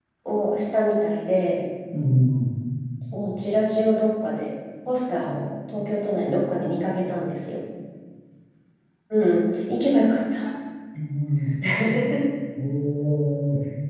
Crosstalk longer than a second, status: none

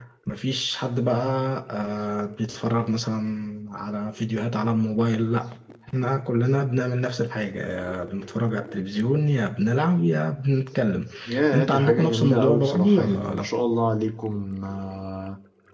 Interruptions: present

